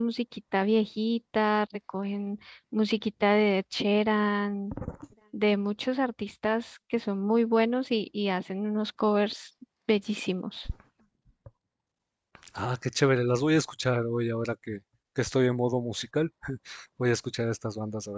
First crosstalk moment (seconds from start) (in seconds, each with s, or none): none